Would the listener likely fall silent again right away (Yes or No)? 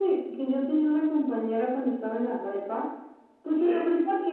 Yes